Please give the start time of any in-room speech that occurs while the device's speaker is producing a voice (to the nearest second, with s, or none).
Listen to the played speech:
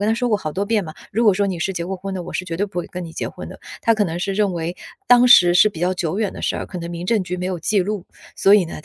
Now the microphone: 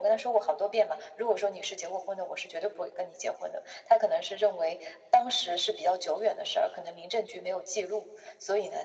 none